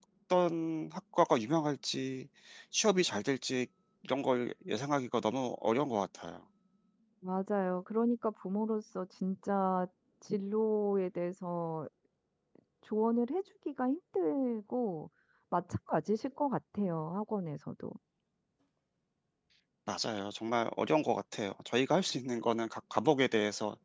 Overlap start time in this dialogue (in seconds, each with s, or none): none